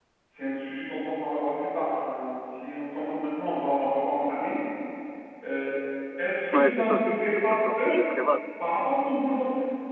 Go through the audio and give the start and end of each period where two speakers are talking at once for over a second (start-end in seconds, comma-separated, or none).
6.5-8.0